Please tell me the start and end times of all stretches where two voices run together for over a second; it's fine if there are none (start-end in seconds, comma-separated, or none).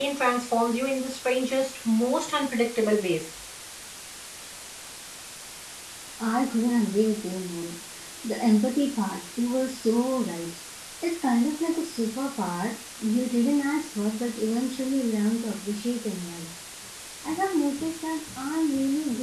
none